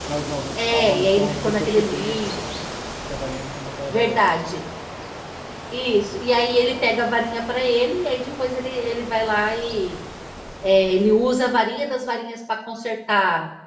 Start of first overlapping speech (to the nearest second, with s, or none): 1 s